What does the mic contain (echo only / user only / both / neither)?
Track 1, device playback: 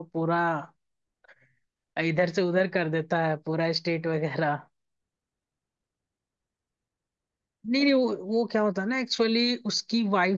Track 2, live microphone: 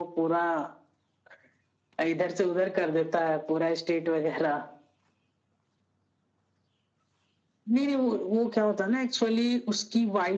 echo only